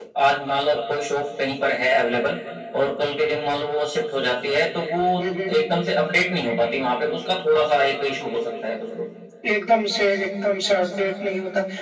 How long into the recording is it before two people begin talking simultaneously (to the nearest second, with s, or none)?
none